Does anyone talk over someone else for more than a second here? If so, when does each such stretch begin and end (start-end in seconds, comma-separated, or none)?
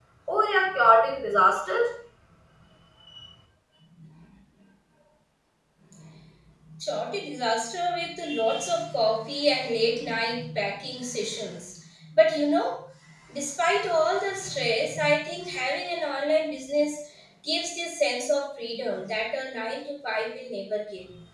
none